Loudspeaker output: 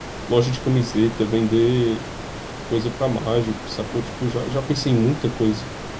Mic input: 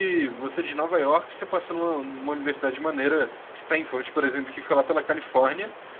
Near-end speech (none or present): present